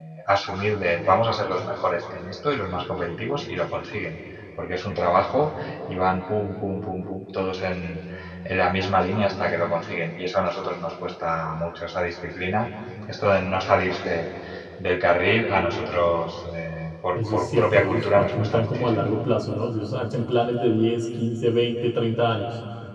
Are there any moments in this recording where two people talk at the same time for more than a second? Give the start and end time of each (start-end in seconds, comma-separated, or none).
17.2-19.0